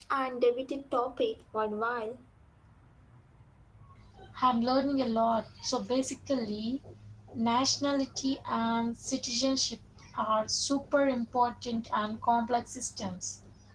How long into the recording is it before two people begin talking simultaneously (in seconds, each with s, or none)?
none